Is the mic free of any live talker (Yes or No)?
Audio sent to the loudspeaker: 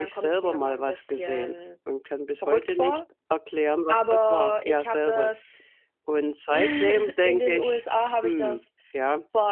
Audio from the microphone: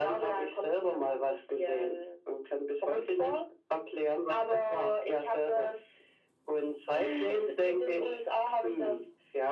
Yes